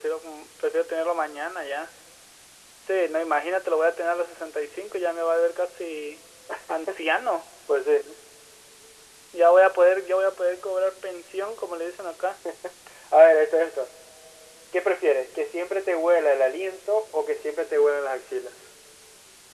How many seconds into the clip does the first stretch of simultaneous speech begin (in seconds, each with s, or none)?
none